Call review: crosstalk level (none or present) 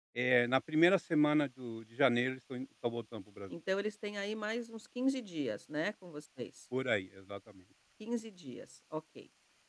none